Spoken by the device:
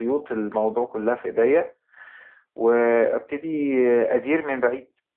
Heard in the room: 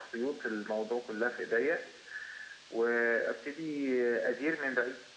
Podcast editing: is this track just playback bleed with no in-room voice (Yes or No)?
Yes